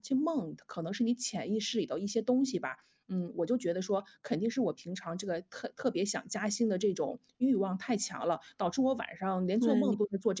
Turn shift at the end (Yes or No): No